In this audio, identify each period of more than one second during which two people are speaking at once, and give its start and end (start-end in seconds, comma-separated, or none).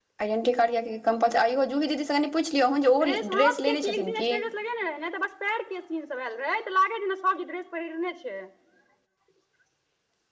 3.0-4.3